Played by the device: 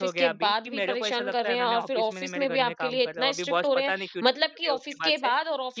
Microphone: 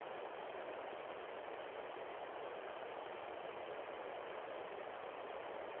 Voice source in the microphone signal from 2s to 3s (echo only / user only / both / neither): neither